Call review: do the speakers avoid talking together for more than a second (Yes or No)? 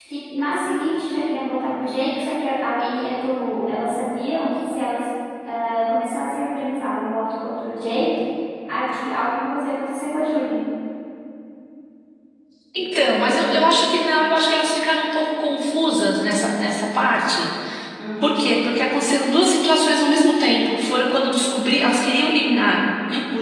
Yes